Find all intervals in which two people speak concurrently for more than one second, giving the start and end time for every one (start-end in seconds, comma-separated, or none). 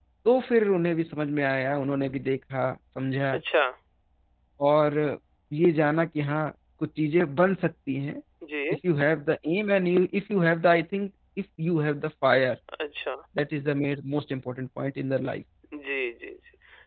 none